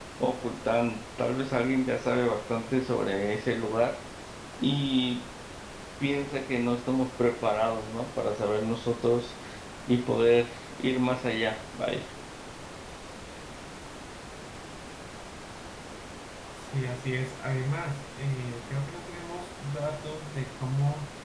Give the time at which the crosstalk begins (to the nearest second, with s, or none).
none